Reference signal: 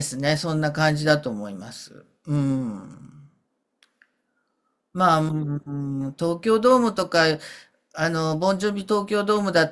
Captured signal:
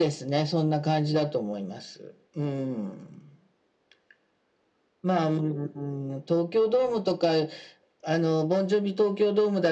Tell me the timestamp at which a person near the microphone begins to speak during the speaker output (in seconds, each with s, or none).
none